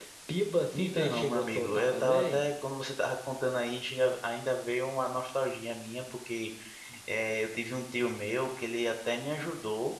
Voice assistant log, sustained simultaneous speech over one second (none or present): present